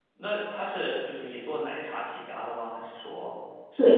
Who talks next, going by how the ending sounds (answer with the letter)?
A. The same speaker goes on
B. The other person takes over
B